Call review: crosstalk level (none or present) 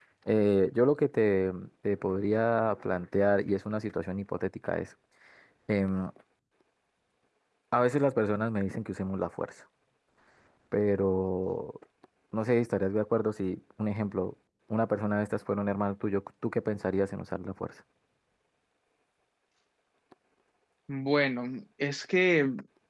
none